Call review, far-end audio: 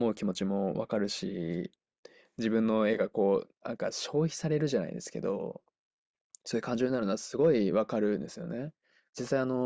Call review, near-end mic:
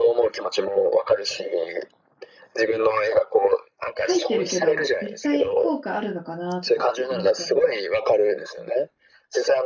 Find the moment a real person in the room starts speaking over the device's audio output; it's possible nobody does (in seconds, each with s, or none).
4.0 s